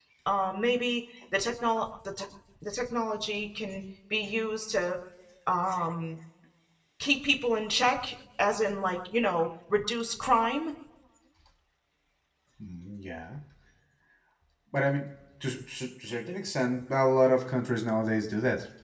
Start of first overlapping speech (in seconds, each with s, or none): none